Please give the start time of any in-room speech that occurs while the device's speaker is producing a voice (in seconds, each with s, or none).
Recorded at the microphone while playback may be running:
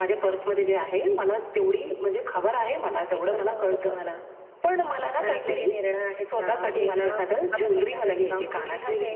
none